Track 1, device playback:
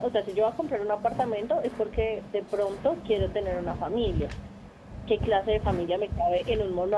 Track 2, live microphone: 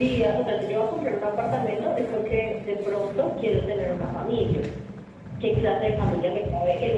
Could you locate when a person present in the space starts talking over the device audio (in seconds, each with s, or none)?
none